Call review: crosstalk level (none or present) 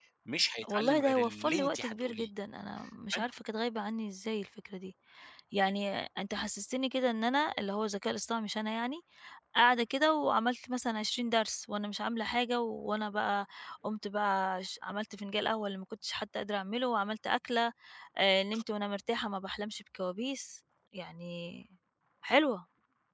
present